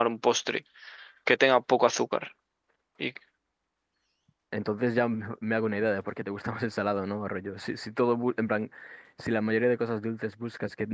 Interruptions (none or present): none